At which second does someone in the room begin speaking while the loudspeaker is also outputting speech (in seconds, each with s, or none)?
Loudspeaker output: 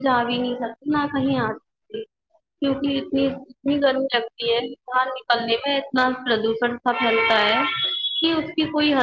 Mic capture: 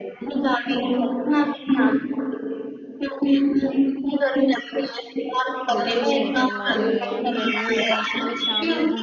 5.8 s